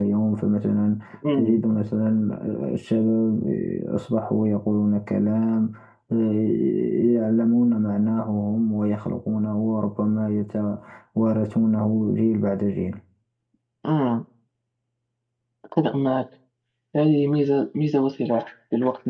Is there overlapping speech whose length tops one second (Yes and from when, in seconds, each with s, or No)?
No